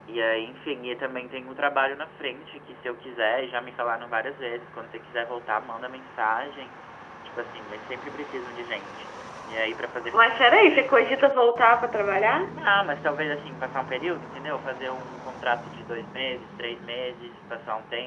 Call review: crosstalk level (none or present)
none